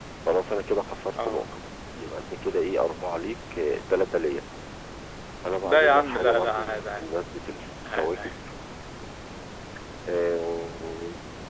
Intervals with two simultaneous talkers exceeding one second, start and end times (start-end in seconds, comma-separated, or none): 5.6-7.0